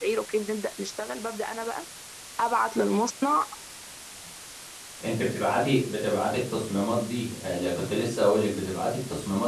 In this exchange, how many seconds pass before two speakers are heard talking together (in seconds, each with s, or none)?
none